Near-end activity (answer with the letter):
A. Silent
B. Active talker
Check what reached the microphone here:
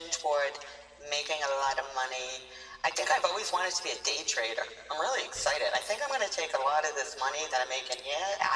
A